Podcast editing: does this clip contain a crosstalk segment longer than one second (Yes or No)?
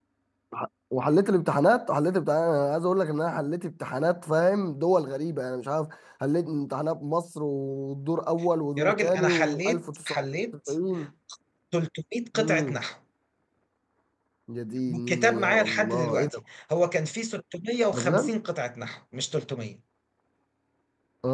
Yes